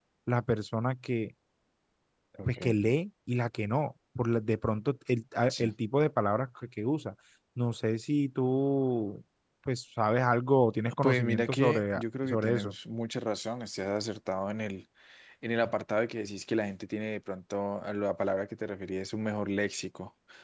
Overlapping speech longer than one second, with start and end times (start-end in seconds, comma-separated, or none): 11.0-12.8